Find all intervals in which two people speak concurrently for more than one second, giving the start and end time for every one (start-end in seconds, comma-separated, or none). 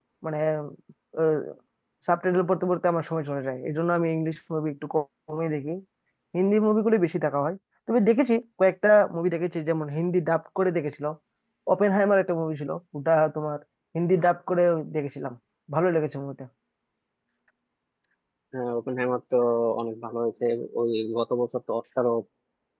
none